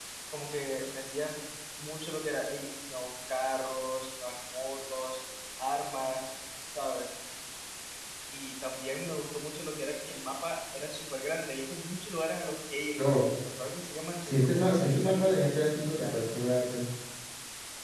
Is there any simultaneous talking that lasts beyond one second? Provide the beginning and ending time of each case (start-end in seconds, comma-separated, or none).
14.2-15.5